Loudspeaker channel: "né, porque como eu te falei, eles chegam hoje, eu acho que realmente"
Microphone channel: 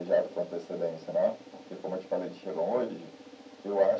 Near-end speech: none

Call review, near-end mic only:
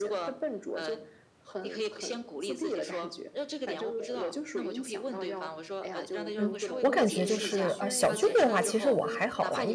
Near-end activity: present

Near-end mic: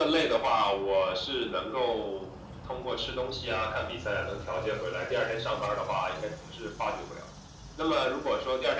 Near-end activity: none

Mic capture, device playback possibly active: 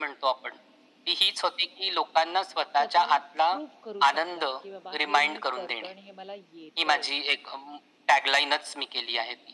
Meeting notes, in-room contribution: present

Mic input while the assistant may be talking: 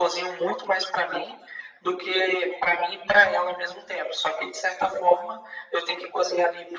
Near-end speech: none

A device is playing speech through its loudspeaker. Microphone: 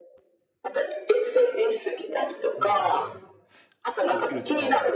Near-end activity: present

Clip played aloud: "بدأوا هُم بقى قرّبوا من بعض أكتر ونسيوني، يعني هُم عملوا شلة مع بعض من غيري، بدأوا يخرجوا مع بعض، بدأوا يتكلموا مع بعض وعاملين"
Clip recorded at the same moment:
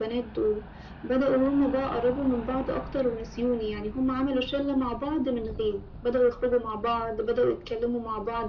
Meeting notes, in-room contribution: none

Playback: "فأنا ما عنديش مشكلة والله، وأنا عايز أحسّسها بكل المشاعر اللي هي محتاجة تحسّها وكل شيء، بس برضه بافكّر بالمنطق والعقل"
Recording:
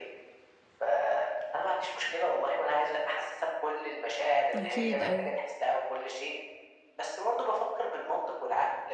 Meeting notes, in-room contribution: present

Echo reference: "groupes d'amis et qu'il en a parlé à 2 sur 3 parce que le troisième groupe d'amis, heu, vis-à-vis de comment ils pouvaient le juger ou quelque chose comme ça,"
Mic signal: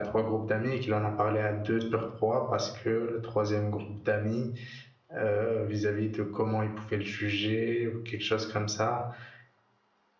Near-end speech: none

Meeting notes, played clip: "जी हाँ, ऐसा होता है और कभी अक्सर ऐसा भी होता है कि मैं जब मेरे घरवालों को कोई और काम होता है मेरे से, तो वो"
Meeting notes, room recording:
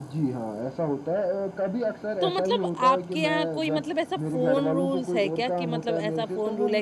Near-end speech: present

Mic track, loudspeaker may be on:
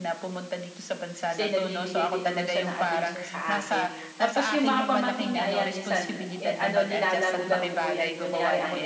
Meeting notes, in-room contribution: present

